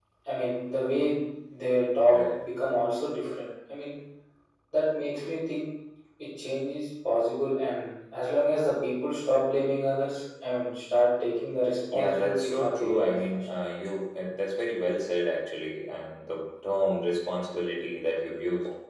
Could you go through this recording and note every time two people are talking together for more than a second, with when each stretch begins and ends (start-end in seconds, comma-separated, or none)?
11.9-13.4